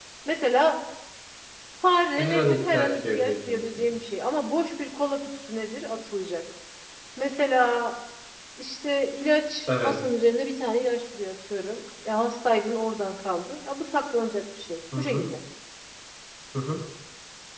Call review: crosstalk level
present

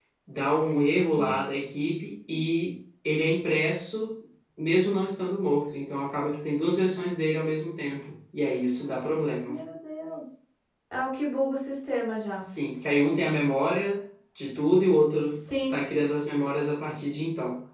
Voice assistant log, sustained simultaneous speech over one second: none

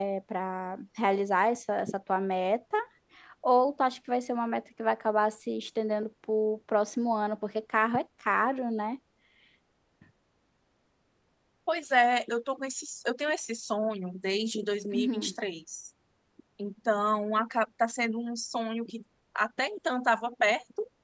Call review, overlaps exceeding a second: none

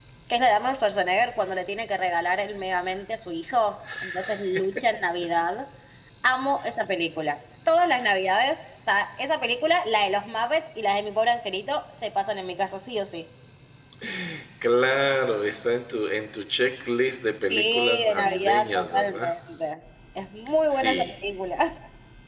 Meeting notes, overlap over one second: present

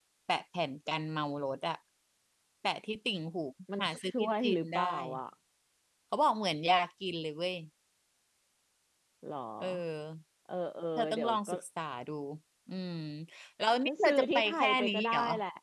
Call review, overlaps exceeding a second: present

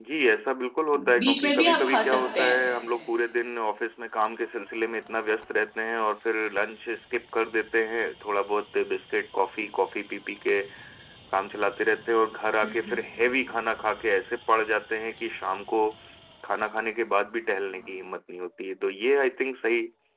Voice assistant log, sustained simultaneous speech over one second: present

